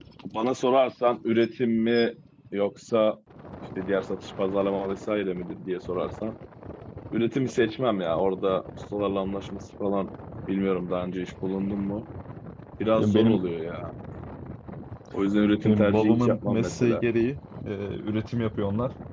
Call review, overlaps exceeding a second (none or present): present